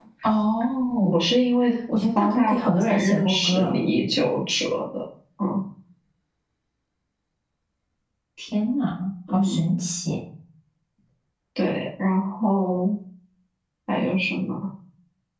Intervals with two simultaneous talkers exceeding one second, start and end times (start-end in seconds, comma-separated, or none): 2.1-3.8